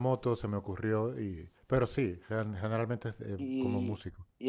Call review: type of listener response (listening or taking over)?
taking over